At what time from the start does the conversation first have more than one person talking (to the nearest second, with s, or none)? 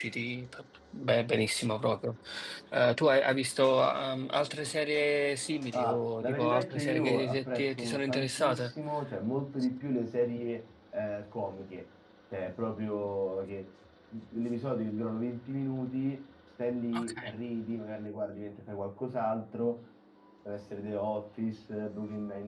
6 s